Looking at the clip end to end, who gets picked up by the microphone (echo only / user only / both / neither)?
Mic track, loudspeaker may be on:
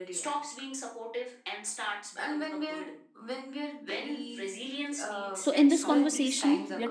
both